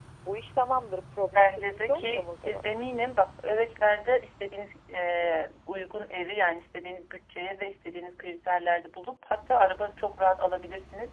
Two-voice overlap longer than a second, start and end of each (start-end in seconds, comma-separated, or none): 1.3-2.7